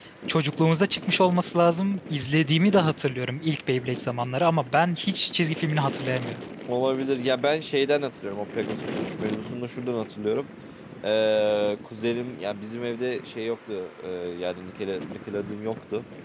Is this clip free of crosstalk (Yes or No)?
Yes